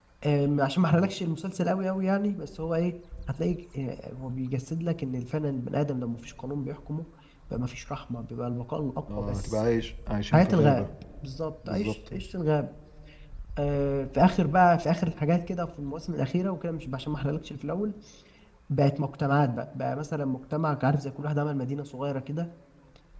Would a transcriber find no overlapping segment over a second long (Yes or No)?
Yes